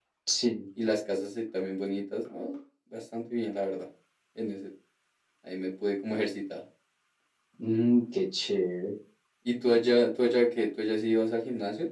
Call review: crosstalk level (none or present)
none